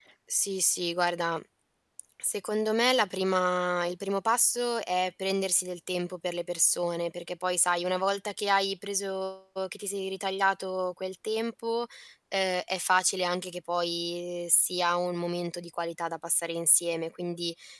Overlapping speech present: No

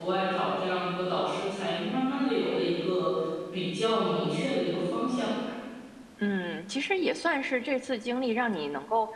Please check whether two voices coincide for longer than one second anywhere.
No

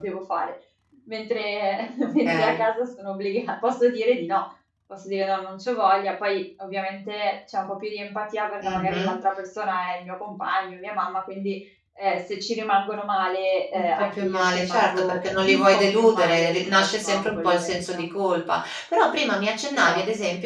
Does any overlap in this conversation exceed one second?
Yes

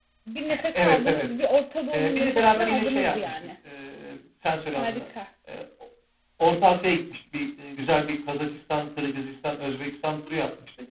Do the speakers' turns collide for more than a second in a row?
Yes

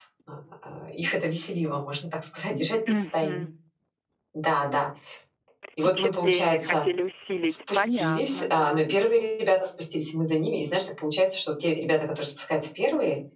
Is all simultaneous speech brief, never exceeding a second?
No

